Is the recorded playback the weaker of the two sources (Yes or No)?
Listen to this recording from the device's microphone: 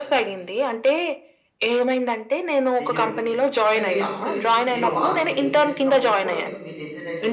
No